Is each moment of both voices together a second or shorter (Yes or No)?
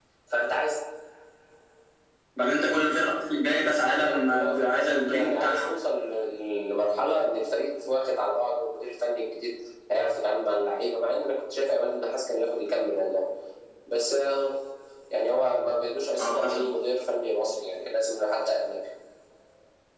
No